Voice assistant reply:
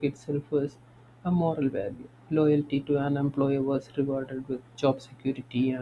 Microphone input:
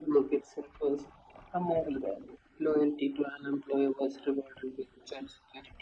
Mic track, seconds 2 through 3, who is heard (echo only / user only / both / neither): echo only